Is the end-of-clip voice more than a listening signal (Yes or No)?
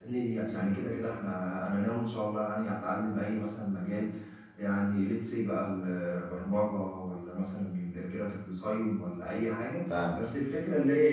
No